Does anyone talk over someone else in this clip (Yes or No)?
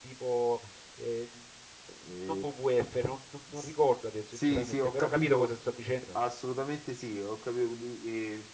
Yes